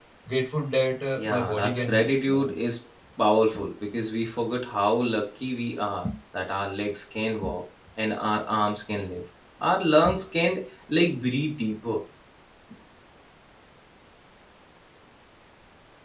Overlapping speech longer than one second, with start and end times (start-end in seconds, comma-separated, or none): 1.2-2.5